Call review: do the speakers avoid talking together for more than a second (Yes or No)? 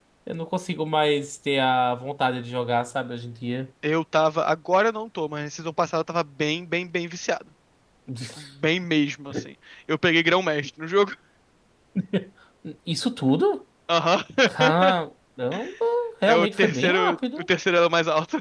No